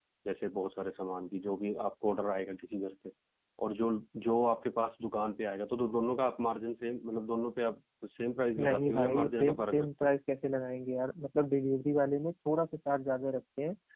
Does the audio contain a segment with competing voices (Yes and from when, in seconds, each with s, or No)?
Yes, from 8.6 s